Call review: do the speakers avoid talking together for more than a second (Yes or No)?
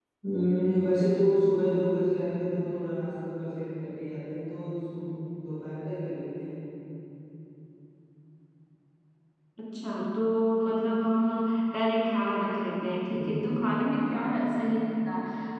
Yes